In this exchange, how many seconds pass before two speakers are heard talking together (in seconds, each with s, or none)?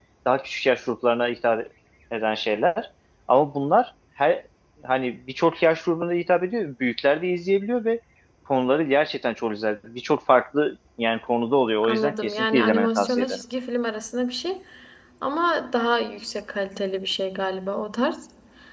11.8 s